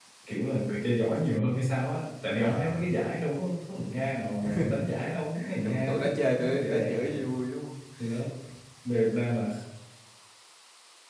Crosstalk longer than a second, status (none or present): present